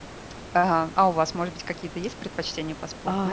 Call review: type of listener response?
taking over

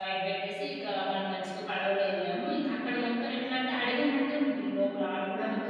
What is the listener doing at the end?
taking over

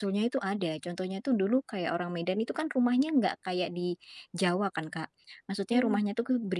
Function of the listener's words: listening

